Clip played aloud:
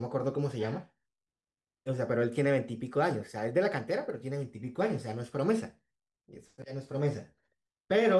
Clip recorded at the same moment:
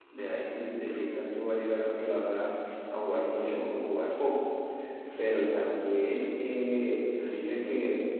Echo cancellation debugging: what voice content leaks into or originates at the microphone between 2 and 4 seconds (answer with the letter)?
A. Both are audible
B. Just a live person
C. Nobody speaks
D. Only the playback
B